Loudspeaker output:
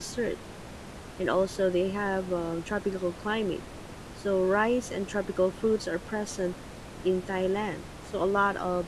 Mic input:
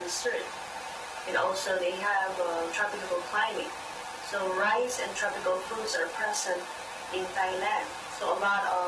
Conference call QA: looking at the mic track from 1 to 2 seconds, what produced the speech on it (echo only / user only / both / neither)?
echo only